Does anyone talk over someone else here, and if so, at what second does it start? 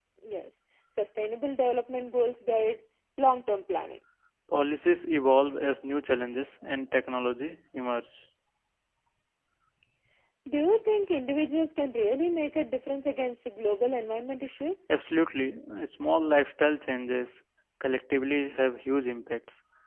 none

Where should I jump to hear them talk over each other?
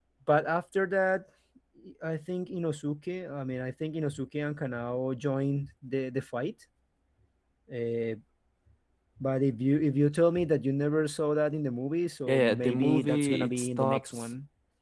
12.3 s

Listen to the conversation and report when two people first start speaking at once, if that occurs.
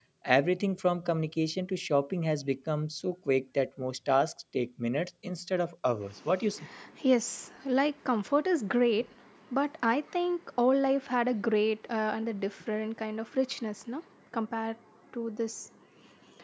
none

